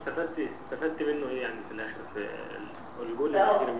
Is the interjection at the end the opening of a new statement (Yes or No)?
Yes